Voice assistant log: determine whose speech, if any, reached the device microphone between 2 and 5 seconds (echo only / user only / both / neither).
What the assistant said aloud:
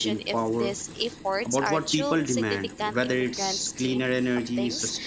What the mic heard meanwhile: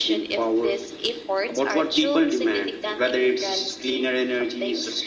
echo only